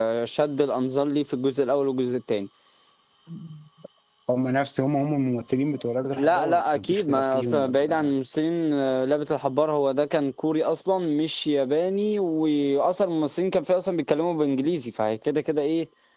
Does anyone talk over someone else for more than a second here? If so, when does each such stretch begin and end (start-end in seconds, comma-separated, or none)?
6.2-8.1